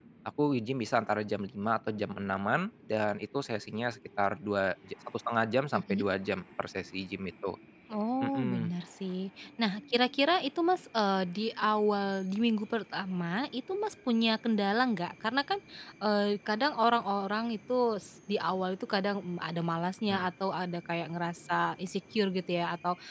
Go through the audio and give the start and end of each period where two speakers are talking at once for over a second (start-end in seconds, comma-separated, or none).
none